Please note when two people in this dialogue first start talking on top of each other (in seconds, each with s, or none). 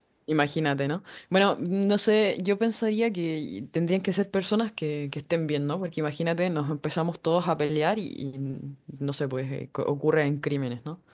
none